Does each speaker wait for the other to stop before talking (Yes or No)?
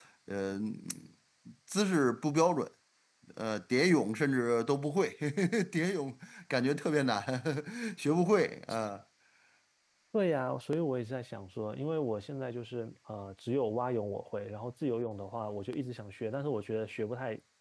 Yes